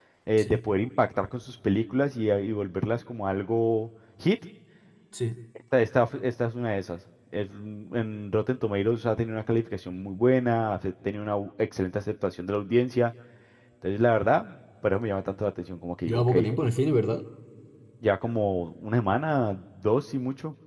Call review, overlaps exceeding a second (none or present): none